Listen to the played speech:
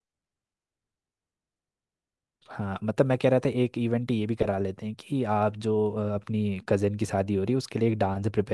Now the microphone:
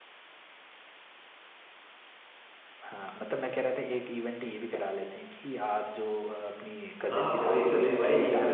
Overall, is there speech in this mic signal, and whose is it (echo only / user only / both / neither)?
both